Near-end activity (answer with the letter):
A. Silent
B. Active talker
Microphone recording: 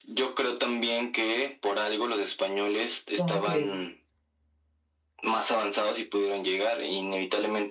B